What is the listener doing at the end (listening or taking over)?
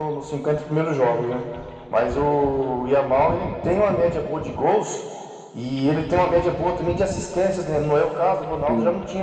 listening